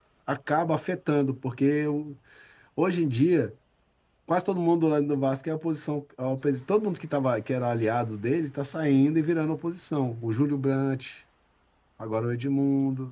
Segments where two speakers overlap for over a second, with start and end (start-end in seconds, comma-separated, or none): none